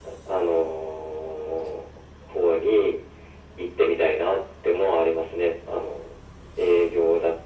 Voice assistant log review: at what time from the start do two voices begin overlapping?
none

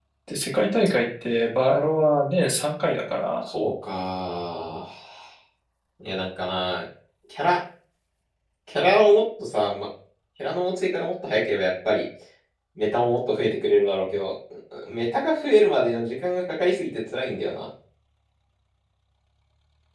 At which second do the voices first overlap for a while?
none

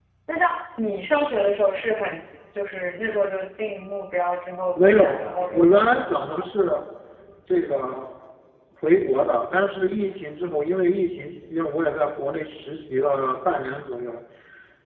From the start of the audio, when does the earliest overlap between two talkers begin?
4.7 s

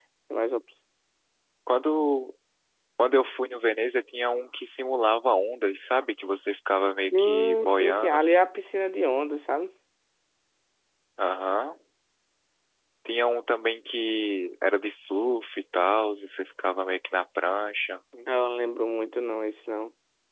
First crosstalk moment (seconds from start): 7.1 s

